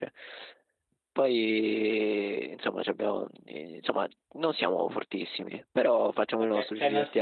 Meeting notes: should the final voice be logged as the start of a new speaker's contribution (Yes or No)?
Yes